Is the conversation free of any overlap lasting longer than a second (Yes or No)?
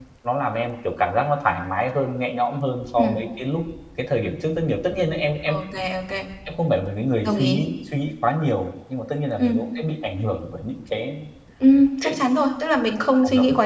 Yes